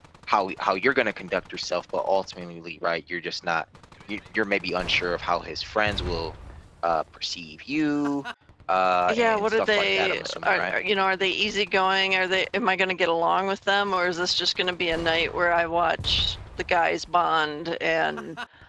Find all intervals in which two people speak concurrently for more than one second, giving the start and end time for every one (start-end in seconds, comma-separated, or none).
9.1-10.7